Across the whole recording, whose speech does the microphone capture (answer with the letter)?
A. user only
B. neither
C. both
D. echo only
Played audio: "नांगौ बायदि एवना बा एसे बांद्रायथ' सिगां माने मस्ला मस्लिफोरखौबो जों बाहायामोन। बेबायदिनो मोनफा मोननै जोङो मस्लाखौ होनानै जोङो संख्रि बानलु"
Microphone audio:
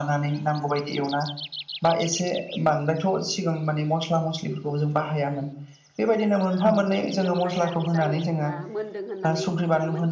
C